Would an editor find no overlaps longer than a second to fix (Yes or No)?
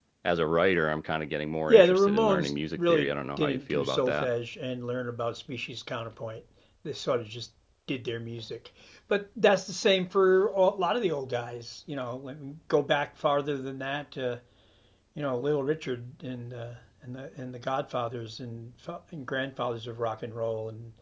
No